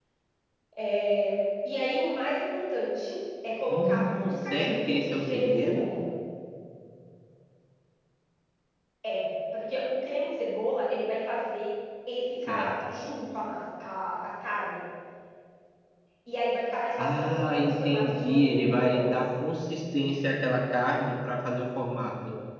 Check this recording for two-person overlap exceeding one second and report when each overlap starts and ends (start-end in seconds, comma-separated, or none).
3.7-5.9, 17.0-19.1